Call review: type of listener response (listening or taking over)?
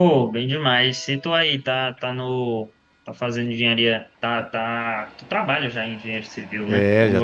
taking over